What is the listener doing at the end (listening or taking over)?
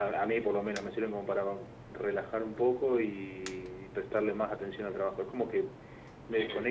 listening